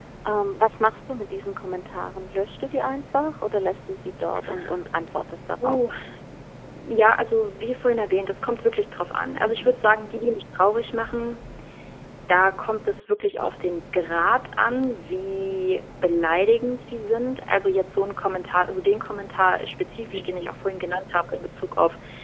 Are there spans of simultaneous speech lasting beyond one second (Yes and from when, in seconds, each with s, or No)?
No